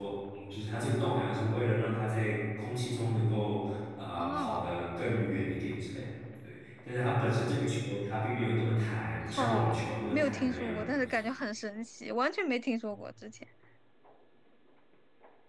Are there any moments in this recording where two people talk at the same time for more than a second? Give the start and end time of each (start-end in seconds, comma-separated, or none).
9.3-10.8